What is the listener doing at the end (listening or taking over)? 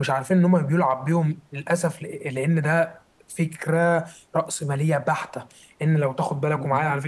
listening